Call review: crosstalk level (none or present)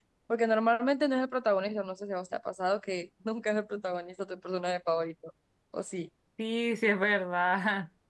none